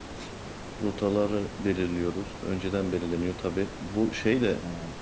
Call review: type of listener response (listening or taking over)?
listening